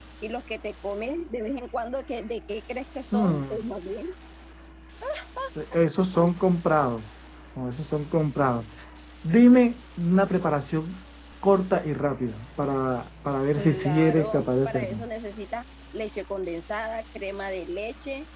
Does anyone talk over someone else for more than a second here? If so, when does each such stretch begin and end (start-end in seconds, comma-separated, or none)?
13.6-15.0